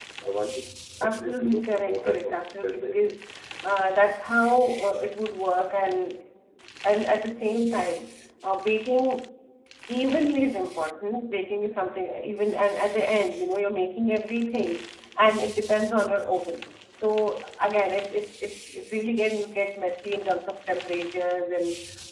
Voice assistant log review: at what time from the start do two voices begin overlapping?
1.0 s

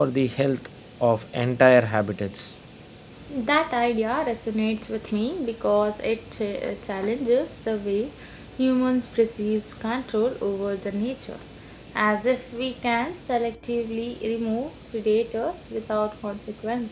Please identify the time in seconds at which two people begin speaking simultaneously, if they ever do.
none

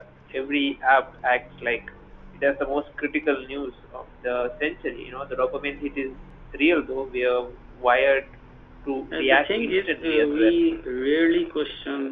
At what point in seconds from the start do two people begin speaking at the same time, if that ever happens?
9.1 s

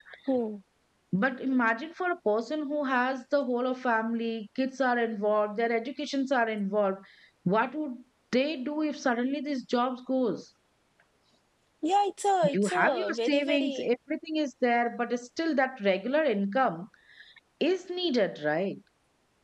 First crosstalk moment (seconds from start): 12.5 s

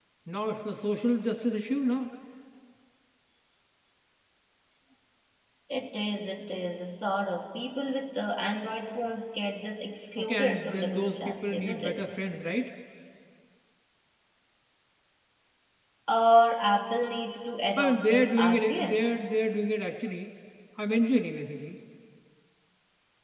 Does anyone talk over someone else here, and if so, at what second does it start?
10.2 s

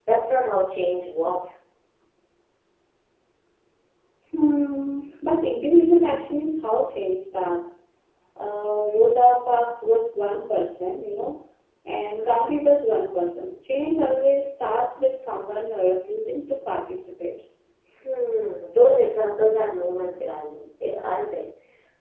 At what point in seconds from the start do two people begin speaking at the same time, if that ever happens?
none

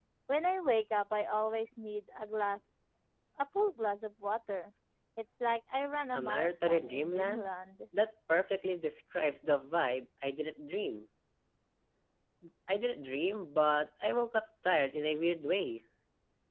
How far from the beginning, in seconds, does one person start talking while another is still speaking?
6.1 s

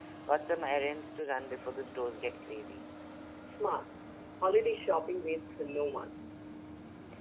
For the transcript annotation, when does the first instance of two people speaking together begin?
none

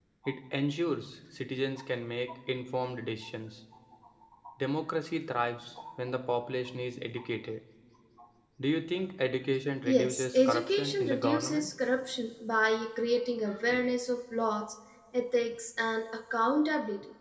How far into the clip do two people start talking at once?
9.8 s

